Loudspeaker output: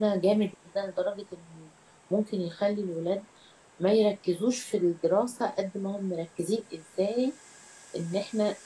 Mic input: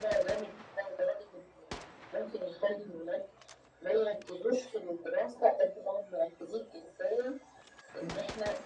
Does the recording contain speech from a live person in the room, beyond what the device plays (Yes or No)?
No